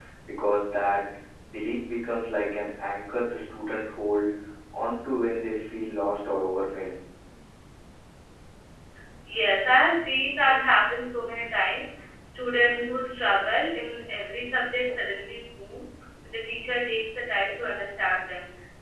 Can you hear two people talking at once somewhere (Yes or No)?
No